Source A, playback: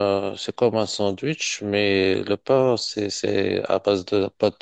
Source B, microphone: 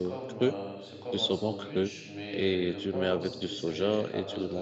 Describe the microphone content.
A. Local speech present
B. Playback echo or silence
A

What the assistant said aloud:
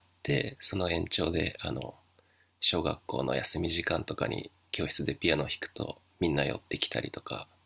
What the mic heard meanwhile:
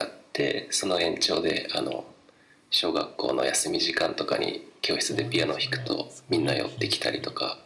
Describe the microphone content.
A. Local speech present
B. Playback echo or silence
A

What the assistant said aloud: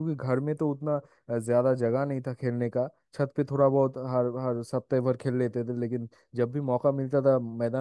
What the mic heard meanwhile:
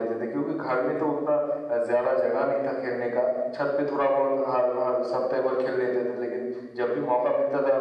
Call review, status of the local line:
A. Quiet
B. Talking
A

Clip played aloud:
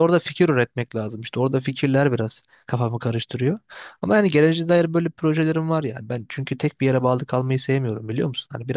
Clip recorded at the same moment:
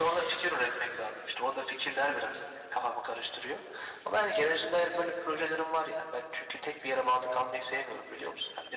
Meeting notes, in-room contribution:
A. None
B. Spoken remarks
A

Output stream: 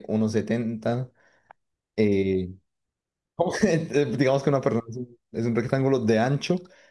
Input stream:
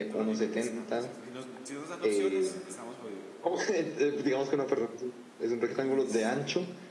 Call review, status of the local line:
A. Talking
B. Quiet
A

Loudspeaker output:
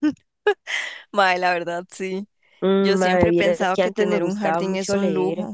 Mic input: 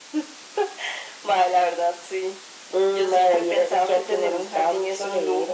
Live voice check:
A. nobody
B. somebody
A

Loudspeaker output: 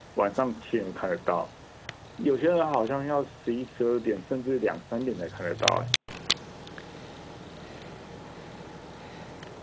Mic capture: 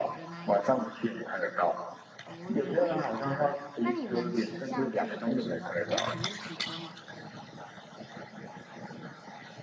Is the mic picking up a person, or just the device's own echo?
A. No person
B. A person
B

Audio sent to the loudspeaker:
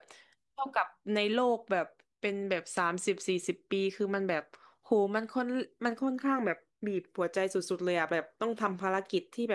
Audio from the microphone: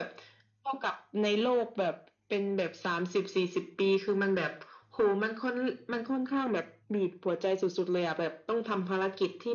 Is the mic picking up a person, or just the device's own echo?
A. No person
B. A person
A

